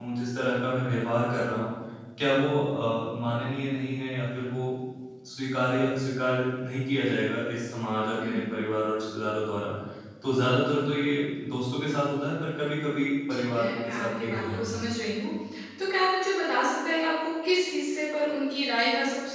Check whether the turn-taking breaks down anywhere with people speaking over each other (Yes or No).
Yes